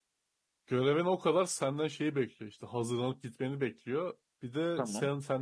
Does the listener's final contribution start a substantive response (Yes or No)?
No